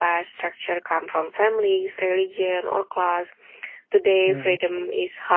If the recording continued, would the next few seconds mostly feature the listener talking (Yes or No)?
No